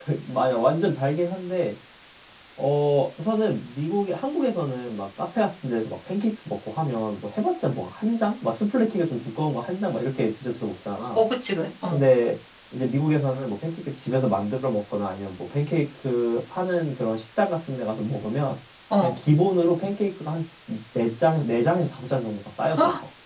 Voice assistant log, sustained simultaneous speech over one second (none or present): none